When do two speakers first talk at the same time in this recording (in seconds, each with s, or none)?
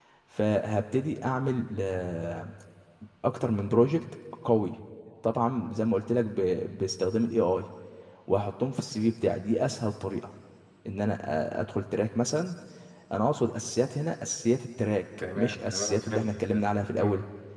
15.2 s